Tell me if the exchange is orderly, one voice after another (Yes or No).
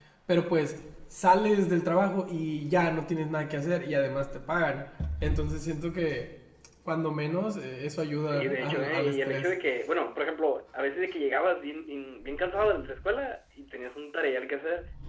No